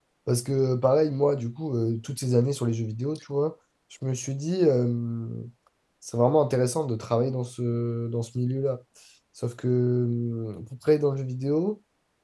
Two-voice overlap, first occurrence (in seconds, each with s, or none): none